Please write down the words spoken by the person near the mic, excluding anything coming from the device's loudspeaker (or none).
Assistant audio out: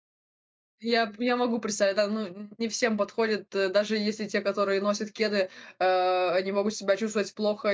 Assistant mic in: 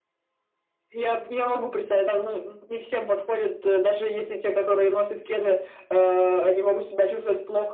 none